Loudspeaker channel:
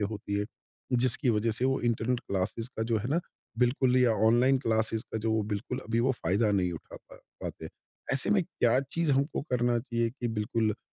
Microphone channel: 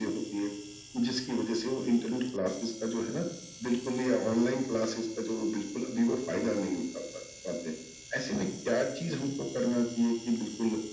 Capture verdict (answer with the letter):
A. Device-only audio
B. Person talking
A